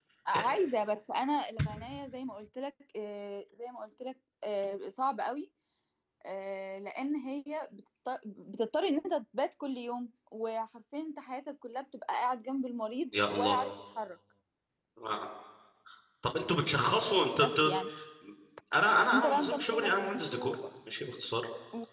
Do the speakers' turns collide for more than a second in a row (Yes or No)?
Yes